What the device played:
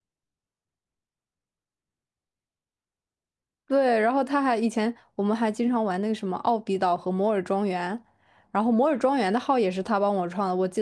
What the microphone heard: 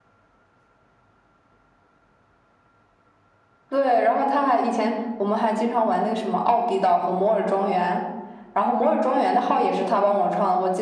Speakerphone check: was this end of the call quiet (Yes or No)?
Yes